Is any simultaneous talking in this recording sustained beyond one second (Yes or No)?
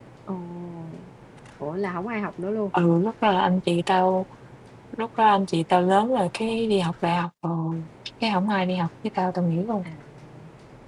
No